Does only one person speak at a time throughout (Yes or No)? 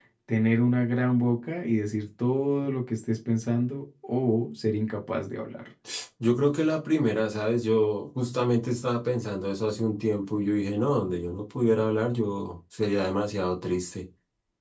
Yes